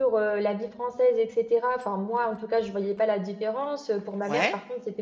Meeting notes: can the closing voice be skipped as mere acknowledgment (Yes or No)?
Yes